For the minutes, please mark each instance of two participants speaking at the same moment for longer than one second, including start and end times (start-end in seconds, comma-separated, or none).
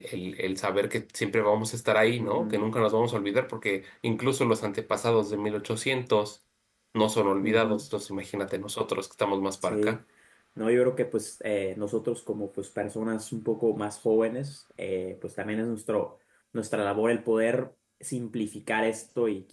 none